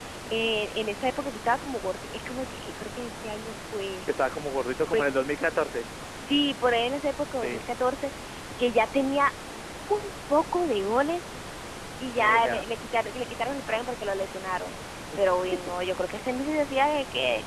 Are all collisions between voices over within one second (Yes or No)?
Yes